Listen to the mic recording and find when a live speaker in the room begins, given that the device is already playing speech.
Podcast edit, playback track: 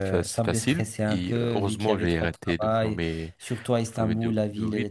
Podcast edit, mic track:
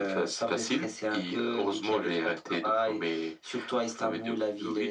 none

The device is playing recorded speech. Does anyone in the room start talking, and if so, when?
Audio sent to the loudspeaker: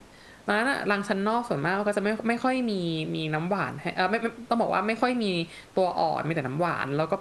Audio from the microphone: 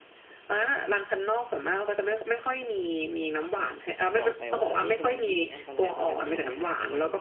4.2 s

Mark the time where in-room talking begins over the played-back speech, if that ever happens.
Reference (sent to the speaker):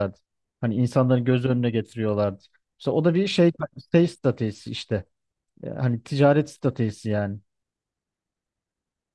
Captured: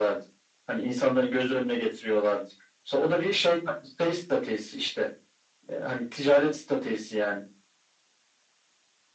none

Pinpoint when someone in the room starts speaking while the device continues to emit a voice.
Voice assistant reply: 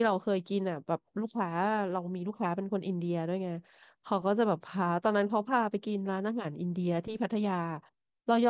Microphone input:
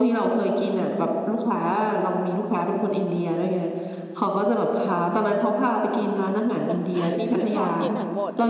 6.6 s

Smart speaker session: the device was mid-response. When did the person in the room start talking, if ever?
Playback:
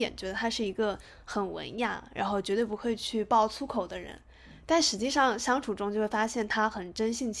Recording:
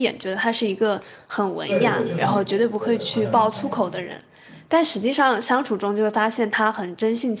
1.6 s

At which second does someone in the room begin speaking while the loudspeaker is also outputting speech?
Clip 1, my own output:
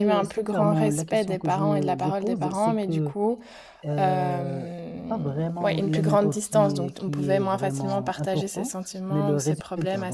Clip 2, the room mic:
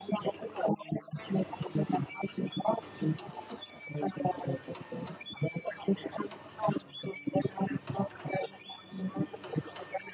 none

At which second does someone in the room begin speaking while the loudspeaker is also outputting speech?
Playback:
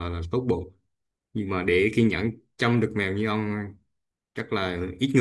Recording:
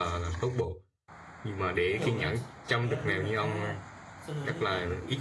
1.9 s

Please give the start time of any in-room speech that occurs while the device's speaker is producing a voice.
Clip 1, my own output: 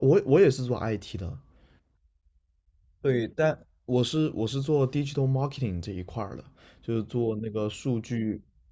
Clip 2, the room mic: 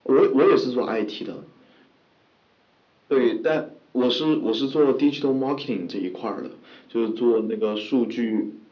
none

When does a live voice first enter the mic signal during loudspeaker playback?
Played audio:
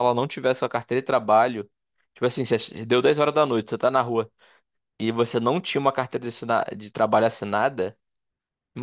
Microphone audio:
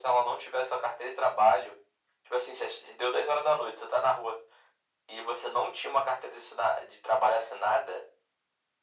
none

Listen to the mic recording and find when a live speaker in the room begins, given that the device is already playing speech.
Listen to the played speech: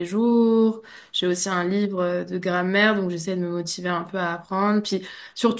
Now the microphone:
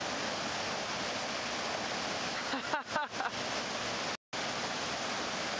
none

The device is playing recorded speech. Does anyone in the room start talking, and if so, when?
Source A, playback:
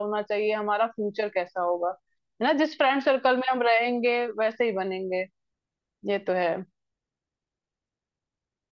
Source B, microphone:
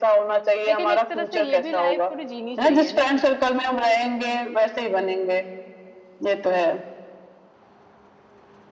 0.7 s

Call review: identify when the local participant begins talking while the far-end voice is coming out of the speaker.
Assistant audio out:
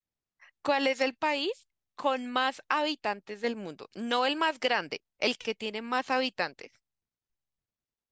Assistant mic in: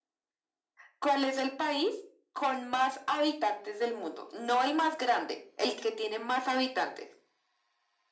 none

